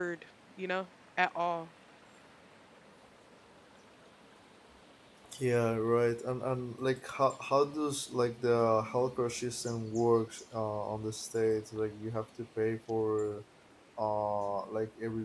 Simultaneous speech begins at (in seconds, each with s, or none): none